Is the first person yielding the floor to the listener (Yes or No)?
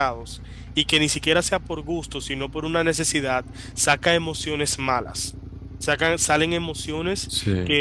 No